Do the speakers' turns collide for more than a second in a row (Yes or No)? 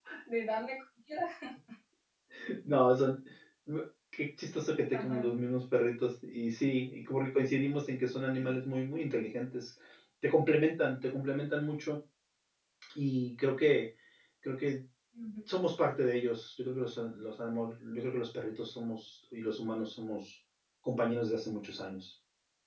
No